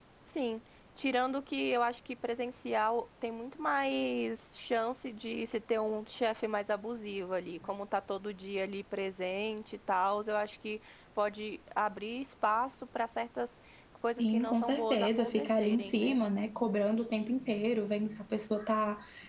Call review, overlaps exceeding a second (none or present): present